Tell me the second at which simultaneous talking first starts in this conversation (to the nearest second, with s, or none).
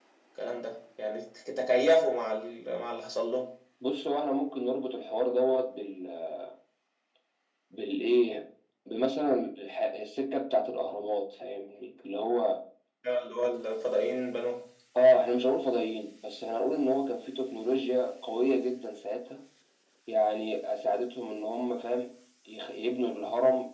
none